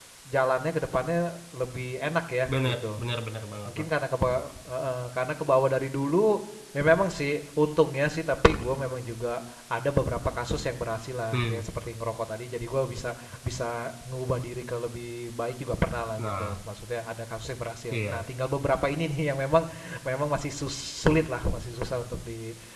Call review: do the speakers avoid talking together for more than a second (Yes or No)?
Yes